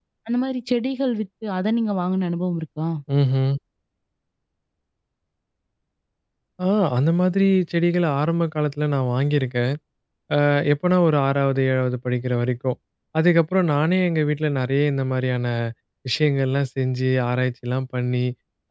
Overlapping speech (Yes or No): No